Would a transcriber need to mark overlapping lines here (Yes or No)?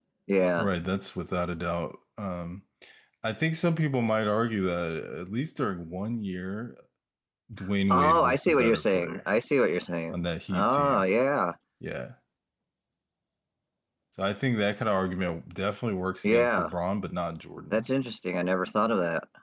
Yes